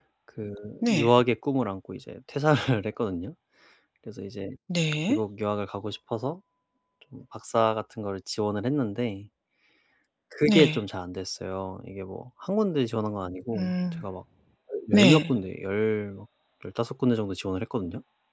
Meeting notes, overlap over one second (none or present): none